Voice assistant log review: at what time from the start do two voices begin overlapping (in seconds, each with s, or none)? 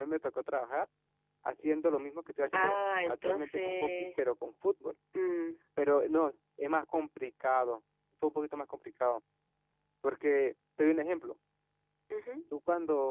2.5 s